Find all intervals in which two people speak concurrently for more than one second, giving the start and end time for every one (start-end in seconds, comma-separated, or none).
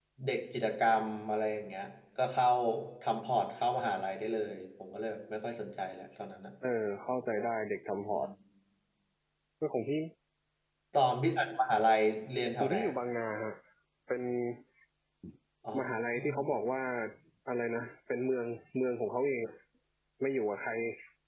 none